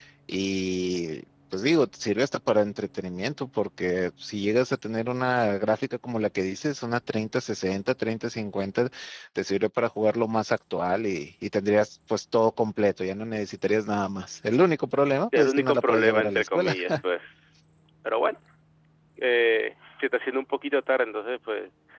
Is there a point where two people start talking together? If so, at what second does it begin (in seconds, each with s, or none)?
15.3 s